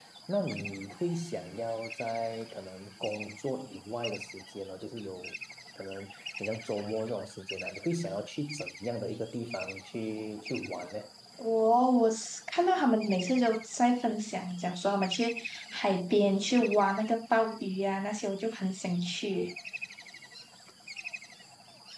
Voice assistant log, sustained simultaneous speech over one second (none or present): none